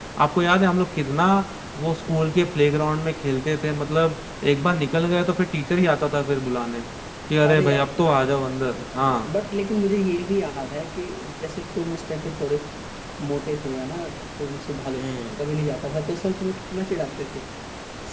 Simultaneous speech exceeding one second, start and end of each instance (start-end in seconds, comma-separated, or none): none